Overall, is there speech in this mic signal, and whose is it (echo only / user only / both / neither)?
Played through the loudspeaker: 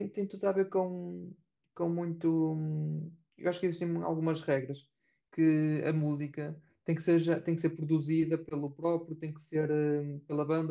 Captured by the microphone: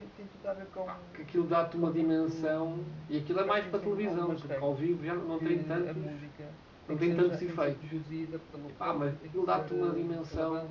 both